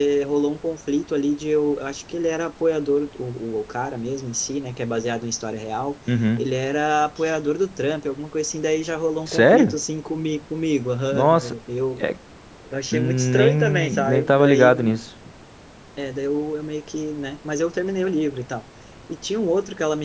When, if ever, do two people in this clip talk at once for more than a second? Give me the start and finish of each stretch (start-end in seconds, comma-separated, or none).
12.9-14.7